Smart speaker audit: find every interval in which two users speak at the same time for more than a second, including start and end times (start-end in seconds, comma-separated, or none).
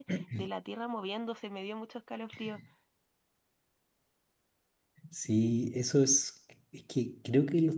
none